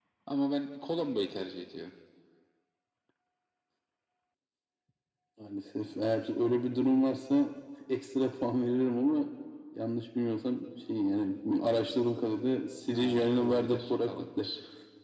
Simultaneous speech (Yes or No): Yes